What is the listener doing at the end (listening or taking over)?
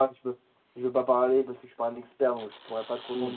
taking over